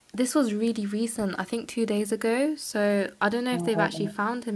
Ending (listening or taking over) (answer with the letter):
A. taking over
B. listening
B